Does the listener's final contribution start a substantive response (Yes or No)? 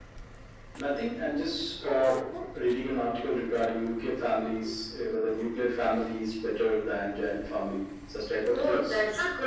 Yes